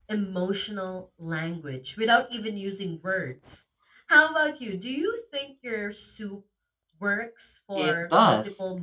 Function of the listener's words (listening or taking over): taking over